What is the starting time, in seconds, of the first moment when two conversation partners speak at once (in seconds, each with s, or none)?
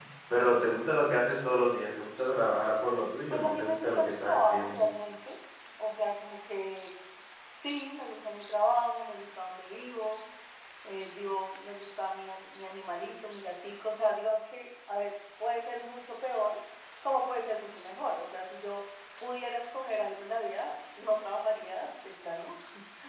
3.3 s